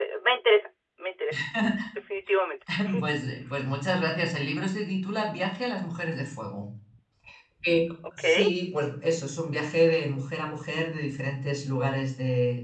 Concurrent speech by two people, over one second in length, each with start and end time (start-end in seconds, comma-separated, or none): none